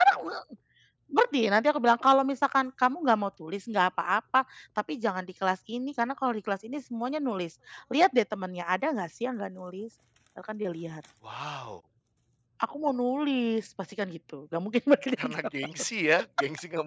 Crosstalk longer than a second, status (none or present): none